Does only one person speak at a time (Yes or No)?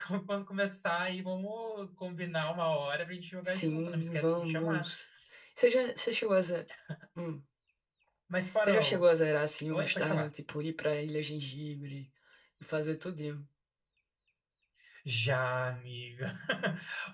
No